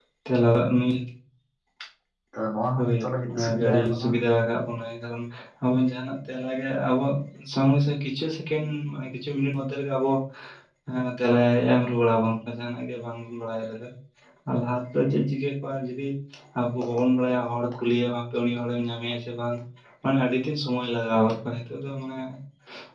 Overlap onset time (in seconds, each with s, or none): 2.8 s